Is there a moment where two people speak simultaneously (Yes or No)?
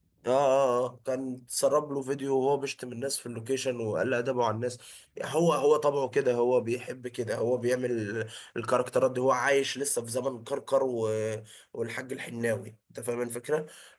No